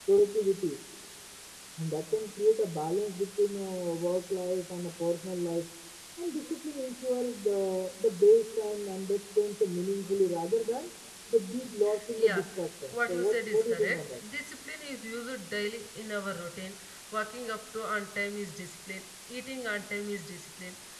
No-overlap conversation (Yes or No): No